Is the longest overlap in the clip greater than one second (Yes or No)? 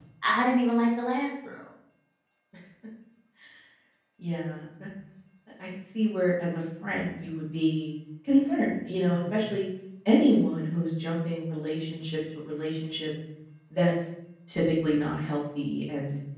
No